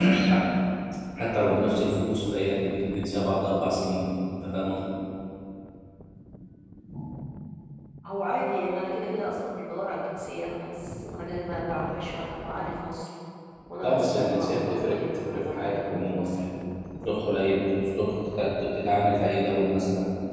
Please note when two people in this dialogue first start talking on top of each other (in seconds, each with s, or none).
13.8 s